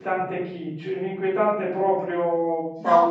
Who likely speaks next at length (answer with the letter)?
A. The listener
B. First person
A